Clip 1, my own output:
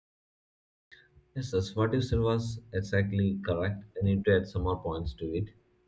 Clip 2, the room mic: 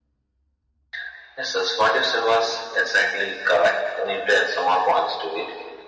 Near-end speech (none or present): none